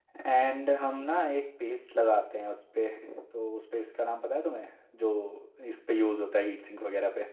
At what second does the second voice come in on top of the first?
none

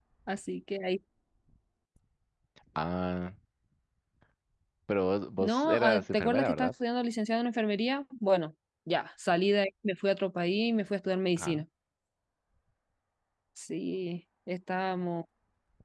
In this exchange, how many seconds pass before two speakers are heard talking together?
5.4 s

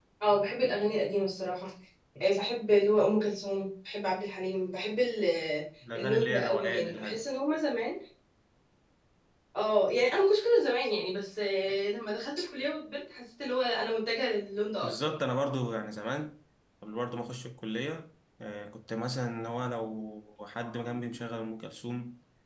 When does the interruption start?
5.9 s

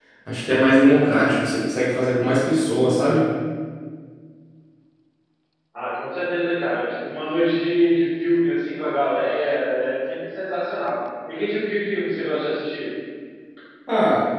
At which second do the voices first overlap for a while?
none

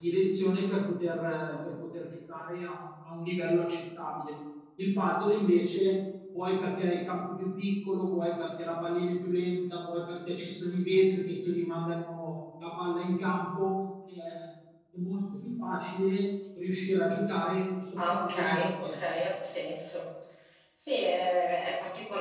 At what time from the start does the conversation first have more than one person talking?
18.0 s

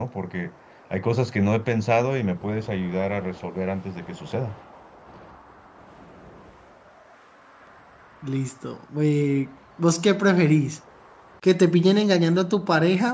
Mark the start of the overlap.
none

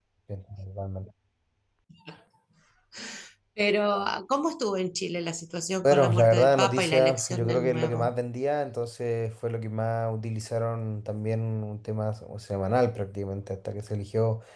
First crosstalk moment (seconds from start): 5.8 s

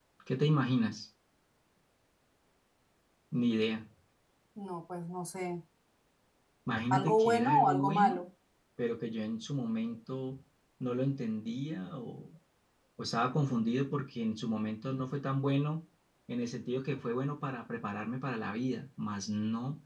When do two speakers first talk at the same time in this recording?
6.9 s

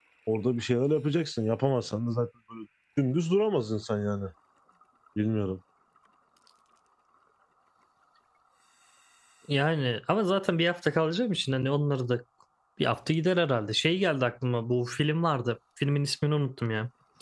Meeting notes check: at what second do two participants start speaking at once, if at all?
none

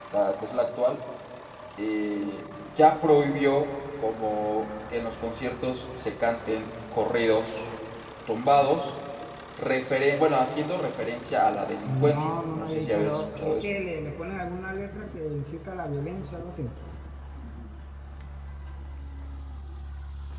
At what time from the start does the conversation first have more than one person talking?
11.9 s

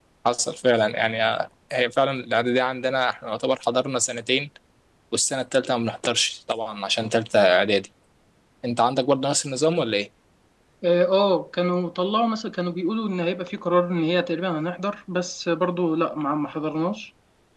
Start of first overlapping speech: none

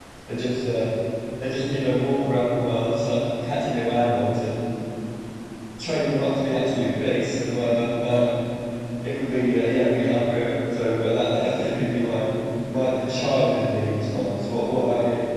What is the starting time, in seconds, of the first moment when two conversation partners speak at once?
none

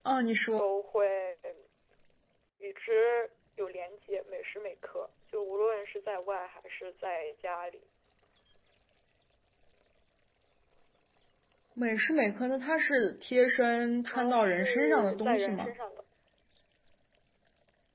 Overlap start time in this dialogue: 14.1 s

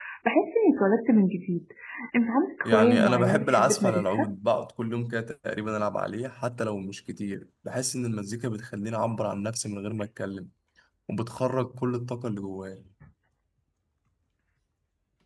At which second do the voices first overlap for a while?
2.6 s

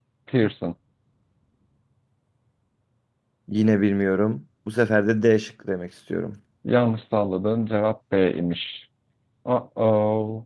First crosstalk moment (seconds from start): none

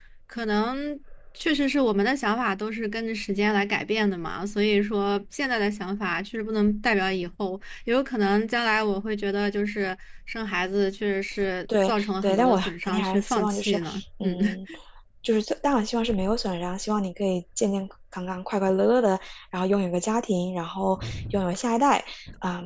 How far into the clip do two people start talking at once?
11.7 s

